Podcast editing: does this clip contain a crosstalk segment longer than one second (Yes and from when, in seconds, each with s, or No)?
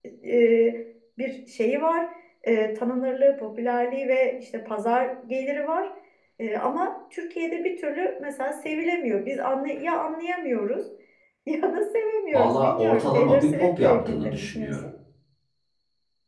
Yes, from 12.3 s